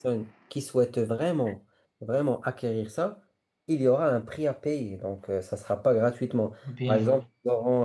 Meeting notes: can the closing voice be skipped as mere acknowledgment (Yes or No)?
Yes